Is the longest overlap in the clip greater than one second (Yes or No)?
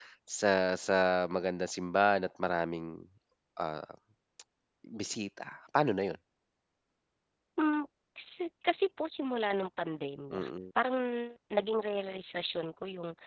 No